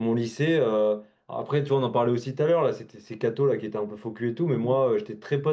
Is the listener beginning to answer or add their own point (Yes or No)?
No